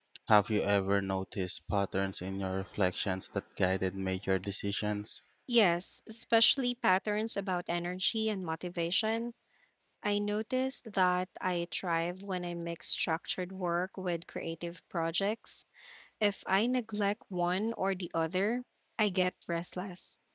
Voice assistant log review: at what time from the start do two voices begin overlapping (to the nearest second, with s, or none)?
none